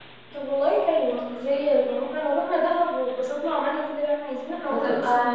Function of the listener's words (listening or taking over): taking over